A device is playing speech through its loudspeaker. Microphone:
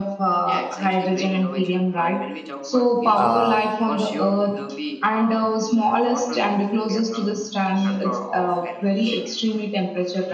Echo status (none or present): present